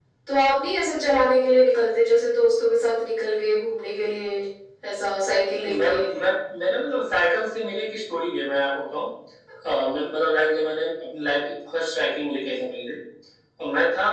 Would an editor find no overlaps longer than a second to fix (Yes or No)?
Yes